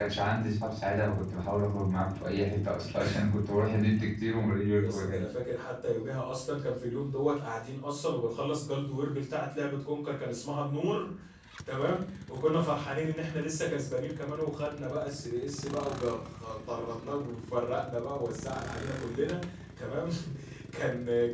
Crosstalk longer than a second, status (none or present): none